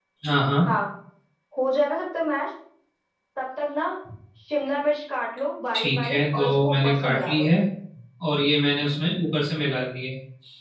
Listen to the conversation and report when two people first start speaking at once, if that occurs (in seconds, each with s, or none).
5.7 s